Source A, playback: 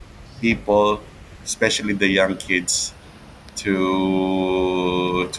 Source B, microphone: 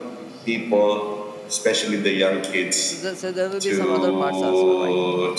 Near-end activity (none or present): present